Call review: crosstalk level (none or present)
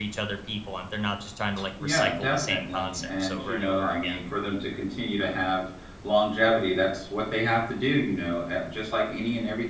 present